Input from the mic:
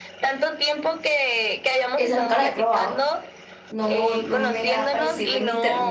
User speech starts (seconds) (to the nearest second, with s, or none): 2 s